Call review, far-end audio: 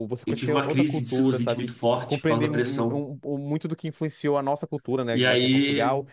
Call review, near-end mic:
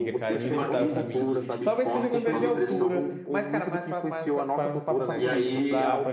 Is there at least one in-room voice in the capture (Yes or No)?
Yes